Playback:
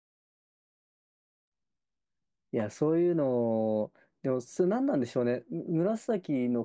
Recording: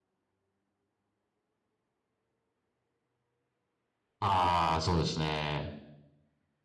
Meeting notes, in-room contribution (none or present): present